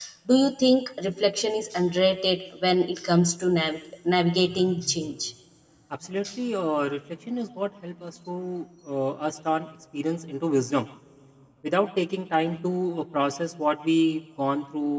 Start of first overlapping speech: none

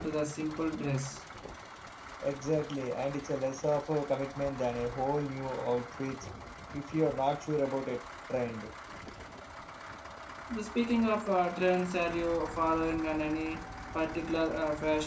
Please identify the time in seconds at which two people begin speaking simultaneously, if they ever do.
none

